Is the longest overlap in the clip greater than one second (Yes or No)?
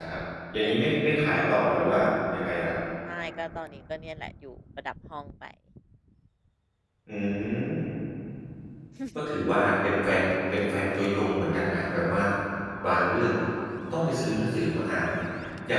No